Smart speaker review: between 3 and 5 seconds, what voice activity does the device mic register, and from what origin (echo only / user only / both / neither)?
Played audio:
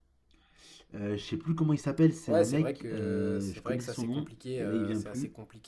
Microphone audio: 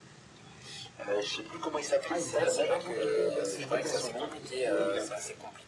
both